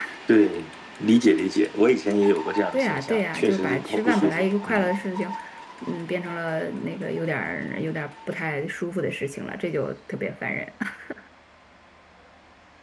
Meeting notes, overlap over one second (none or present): present